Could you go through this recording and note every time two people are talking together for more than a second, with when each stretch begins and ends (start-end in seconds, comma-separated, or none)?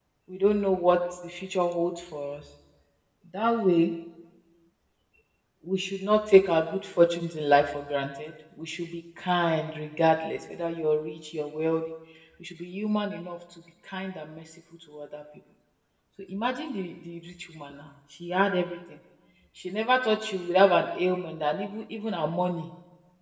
none